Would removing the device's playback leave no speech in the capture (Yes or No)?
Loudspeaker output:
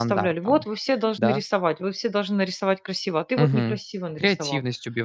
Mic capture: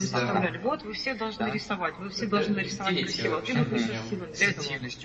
No